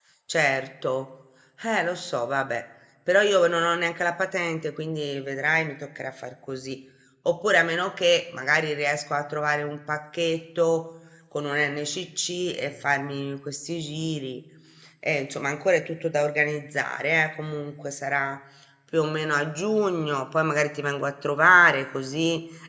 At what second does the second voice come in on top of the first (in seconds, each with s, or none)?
none